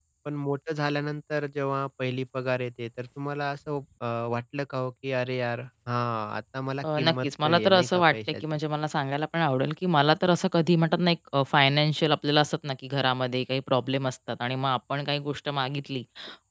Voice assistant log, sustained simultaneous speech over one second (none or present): present